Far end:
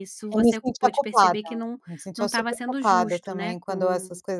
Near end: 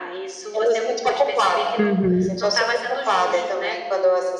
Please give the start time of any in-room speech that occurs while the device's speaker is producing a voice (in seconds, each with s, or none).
1.8 s